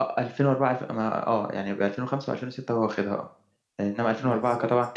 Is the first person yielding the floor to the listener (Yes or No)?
No